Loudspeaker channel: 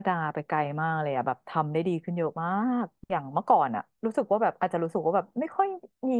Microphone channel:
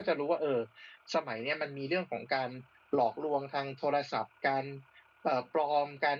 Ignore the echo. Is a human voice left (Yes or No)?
Yes